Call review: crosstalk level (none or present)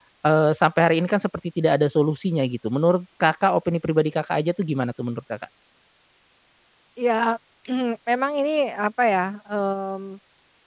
none